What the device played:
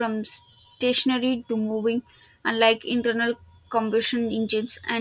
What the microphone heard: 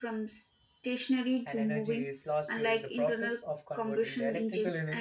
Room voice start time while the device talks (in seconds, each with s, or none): 1.4 s